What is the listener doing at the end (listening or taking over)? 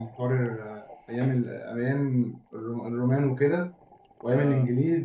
listening